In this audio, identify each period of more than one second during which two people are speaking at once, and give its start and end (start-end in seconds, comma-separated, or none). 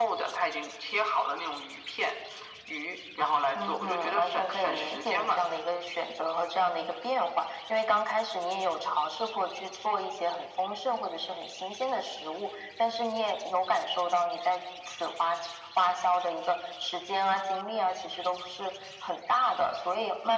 3.6-5.4